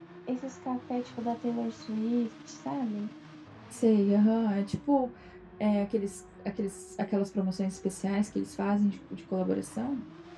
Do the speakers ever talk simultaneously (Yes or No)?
No